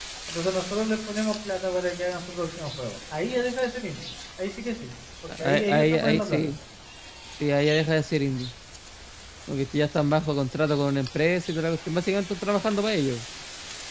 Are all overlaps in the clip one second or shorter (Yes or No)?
No